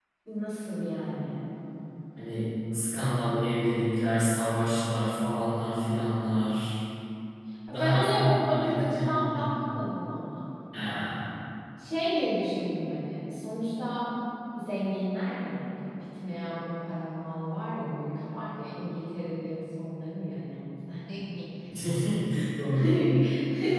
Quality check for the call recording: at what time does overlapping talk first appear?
7.7 s

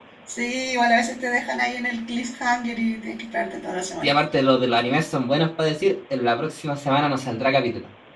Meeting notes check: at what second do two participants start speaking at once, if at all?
none

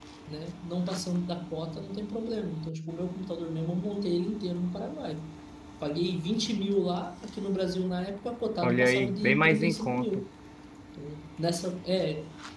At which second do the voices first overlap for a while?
8.6 s

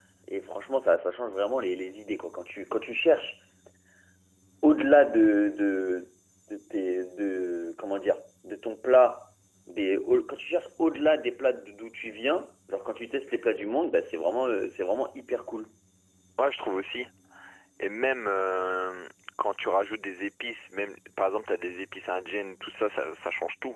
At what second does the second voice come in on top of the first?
none

